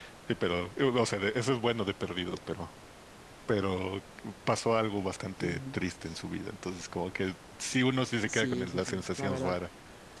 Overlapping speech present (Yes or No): Yes